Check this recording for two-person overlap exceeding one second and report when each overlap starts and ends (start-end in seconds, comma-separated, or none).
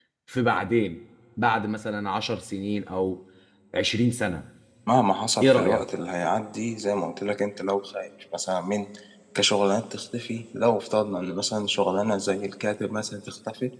none